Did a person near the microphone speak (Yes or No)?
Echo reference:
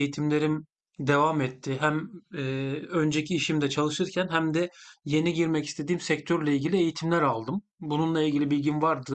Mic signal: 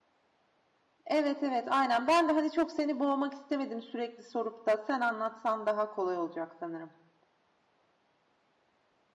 Yes